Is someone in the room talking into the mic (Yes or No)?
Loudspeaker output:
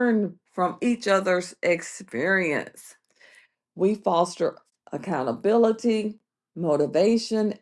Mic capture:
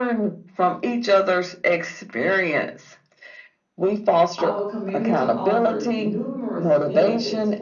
Yes